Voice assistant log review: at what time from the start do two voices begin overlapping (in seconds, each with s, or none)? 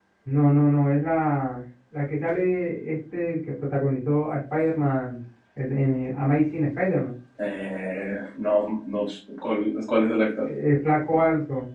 none